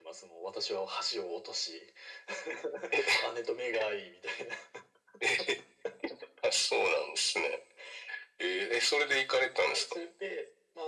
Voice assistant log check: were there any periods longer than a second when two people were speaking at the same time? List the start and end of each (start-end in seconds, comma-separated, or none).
none